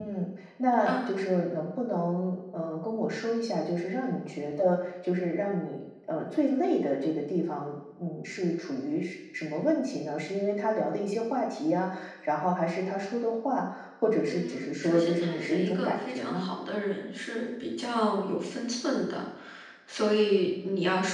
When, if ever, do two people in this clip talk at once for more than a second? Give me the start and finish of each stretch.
14.3-16.5

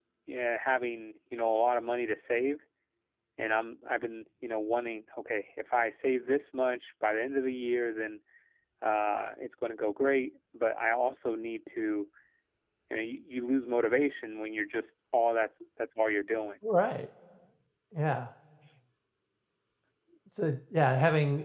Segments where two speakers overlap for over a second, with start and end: none

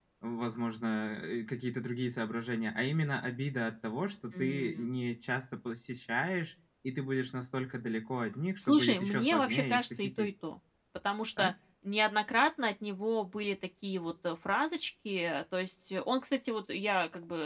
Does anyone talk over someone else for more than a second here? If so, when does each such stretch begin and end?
8.6-10.3

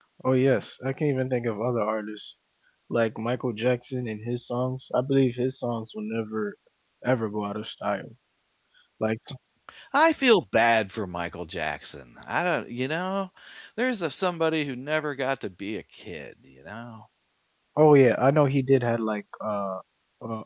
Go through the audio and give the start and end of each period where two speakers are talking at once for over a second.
none

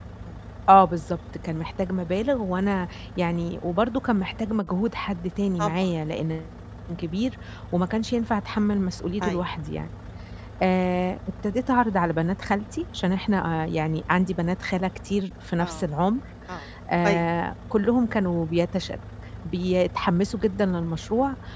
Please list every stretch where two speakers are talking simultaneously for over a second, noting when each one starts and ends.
none

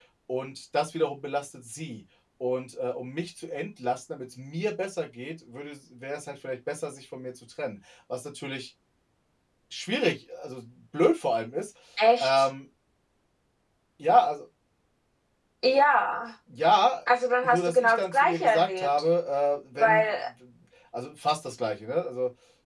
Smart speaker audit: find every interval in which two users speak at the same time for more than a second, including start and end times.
17.4-18.9

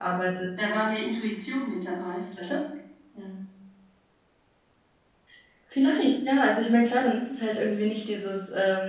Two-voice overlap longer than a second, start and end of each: none

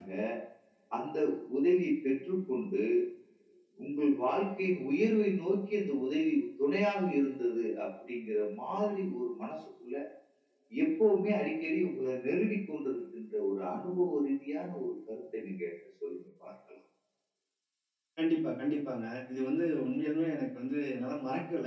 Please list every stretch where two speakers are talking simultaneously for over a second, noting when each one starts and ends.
none

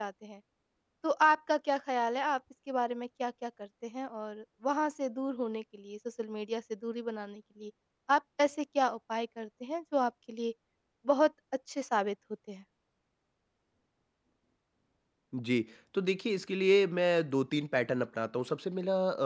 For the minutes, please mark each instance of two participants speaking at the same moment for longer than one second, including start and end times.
none

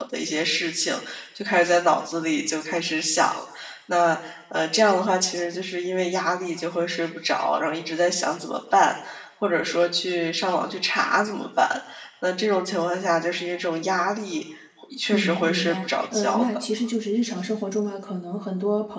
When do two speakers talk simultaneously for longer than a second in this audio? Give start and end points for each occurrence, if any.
15.1-16.6

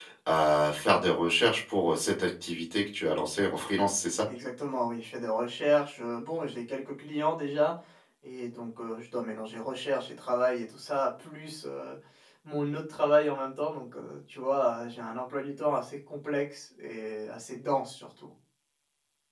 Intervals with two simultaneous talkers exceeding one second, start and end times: none

